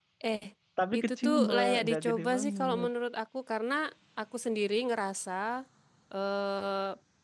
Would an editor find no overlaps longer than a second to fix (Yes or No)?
No